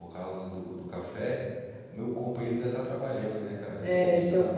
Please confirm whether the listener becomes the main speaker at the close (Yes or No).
Yes